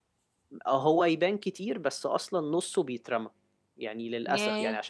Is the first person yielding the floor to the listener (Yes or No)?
No